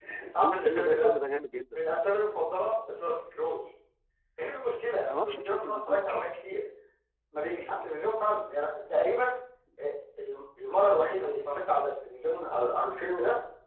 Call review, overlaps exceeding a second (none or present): present